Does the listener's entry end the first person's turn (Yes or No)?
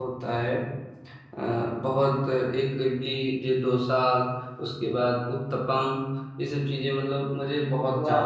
Yes